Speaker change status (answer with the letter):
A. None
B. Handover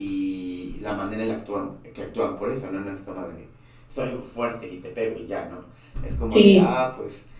A